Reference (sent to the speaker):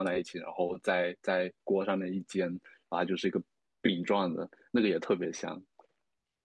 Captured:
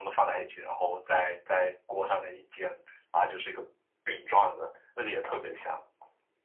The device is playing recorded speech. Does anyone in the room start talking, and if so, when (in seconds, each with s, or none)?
none